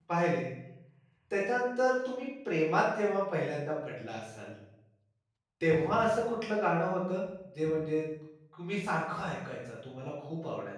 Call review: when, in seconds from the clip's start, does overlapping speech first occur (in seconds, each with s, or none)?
none